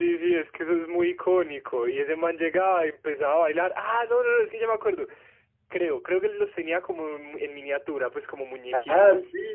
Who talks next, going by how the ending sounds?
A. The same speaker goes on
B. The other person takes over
B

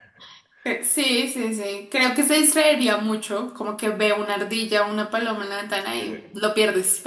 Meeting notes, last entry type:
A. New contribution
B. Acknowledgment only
B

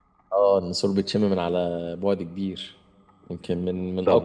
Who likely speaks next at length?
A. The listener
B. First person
A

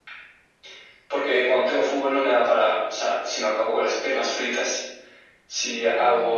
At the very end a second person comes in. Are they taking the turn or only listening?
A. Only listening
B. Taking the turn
A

